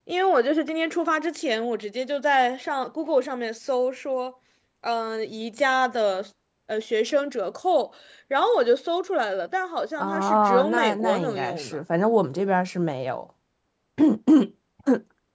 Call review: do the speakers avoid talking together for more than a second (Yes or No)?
No